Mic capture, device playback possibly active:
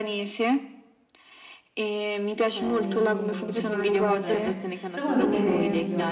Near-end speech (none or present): present